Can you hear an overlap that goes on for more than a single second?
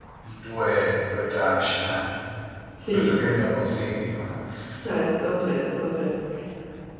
No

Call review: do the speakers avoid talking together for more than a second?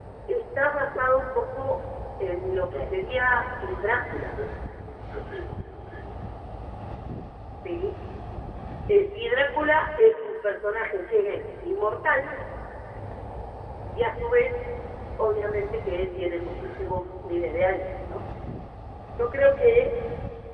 No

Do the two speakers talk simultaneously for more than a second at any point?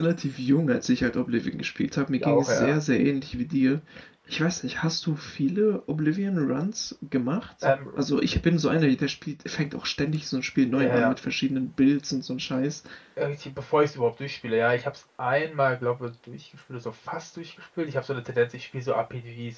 No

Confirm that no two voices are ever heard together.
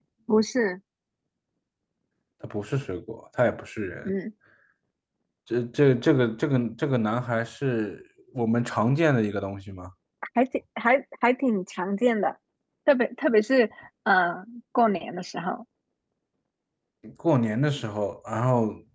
Yes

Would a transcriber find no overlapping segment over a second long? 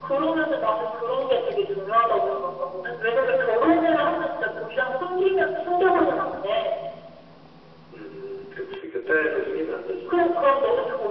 Yes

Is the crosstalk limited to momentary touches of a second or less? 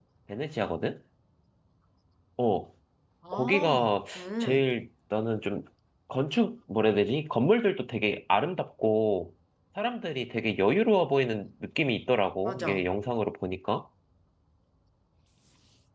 Yes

